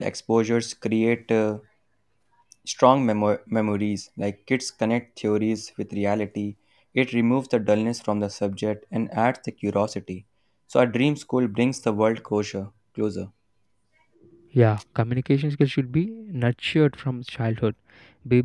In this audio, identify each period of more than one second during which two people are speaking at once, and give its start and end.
none

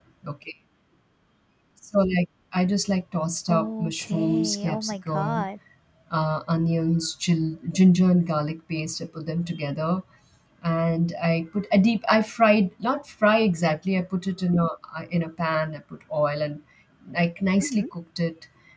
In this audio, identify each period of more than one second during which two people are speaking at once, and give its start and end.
3.5-5.5

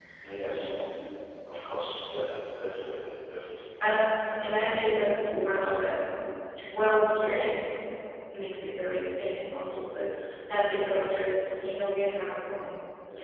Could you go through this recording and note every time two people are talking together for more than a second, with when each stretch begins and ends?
none

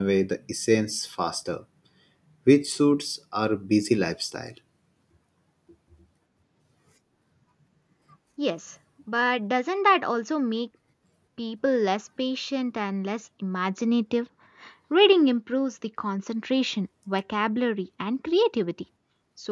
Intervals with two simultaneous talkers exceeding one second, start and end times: none

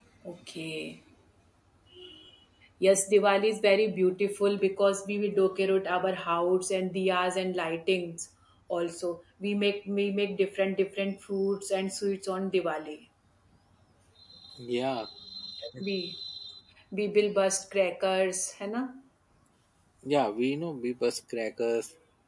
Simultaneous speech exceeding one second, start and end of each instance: none

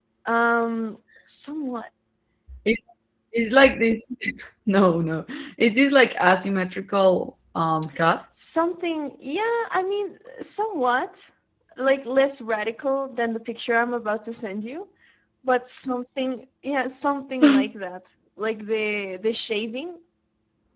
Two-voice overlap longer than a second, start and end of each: none

